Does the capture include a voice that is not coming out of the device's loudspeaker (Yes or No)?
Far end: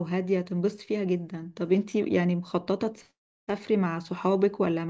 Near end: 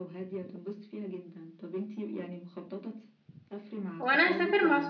Yes